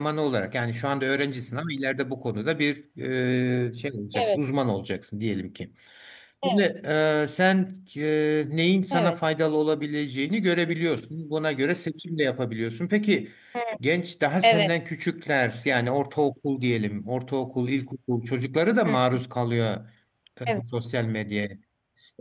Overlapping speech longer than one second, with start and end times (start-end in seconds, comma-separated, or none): none